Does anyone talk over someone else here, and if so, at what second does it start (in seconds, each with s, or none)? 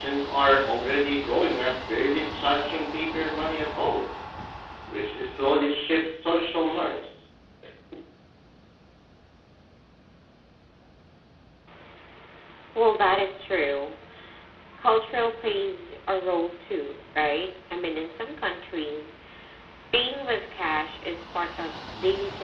none